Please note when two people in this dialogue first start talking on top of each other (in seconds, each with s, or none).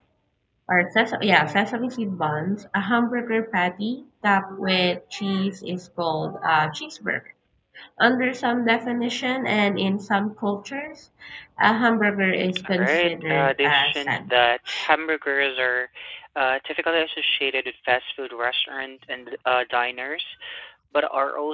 12.5 s